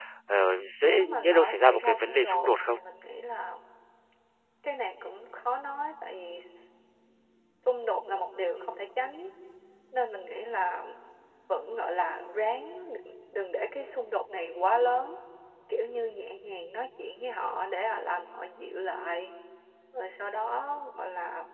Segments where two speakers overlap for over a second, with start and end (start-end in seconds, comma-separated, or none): 0.8-2.8